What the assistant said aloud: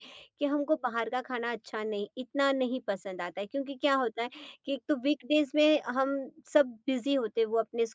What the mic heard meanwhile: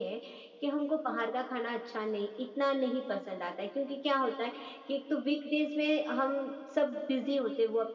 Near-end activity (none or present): none